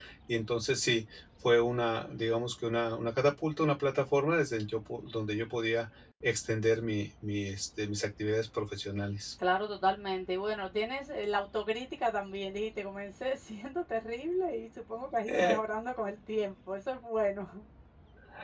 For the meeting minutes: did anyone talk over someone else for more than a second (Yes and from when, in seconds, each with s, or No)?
No